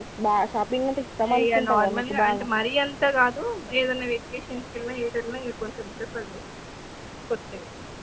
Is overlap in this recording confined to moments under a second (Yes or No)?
No